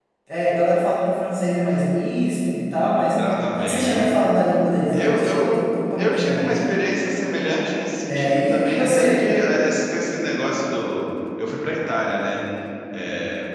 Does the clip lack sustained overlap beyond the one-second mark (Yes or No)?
No